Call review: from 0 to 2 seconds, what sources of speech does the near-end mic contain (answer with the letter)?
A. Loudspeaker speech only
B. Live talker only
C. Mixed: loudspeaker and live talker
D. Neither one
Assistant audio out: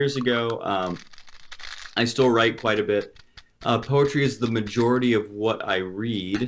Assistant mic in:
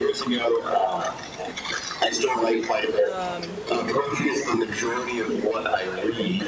A